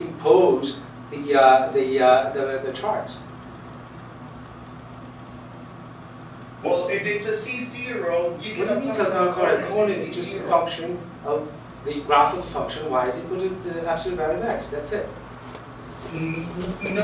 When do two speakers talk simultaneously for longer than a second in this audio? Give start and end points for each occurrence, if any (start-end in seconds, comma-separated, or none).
8.6-10.6